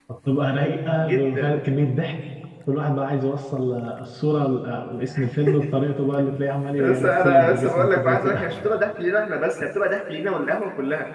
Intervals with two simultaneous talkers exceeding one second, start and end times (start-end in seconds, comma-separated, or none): 6.8-8.4